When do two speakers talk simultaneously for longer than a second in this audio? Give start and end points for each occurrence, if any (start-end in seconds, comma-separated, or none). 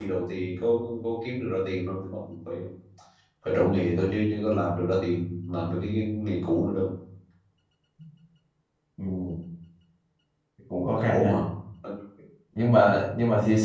none